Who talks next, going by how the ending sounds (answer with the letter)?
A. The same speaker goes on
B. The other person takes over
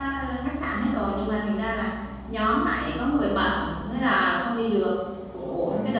A